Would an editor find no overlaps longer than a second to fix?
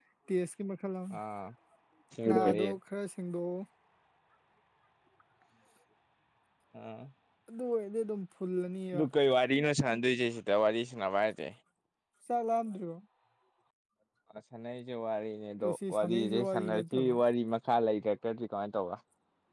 No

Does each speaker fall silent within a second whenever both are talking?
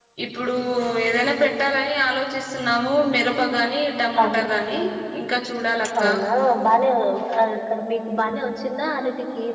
Yes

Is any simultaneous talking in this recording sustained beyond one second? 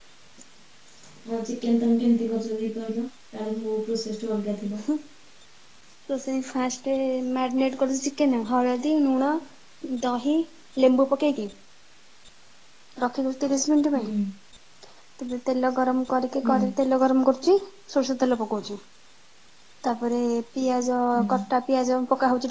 No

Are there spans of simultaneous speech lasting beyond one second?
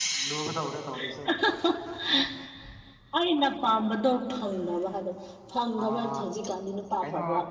No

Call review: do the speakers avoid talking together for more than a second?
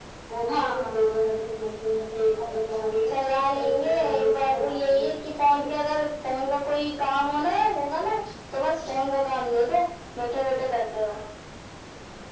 No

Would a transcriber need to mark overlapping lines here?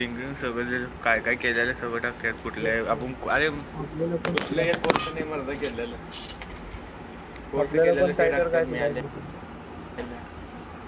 Yes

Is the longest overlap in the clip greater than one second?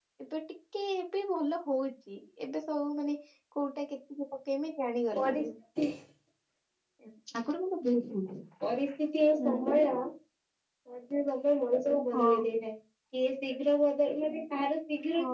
No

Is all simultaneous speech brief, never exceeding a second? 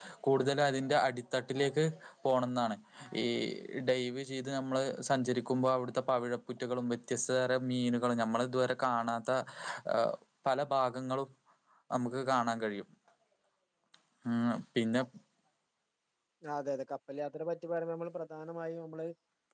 Yes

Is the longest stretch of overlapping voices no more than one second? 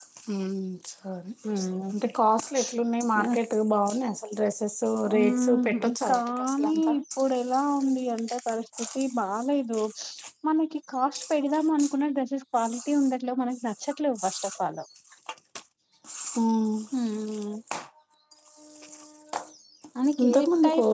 No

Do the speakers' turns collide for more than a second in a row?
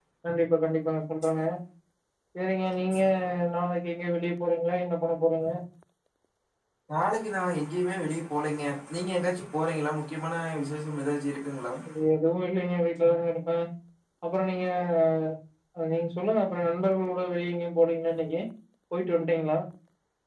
No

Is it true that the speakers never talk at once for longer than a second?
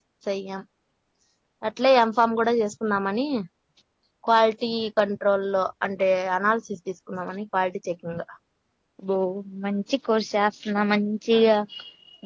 Yes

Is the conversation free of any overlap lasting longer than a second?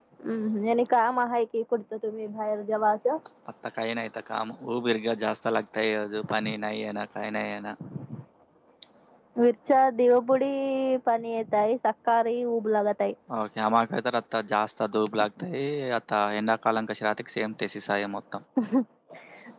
Yes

